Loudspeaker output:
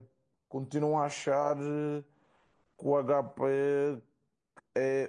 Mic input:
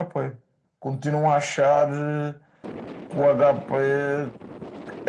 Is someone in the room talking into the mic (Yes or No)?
No